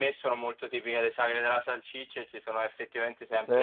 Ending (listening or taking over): listening